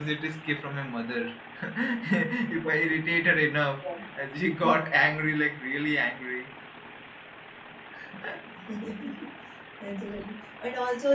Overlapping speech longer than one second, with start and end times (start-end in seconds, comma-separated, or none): none